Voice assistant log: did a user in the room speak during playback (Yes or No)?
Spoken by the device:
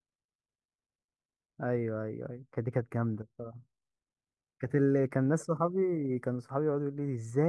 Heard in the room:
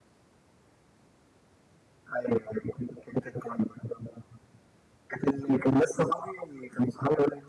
No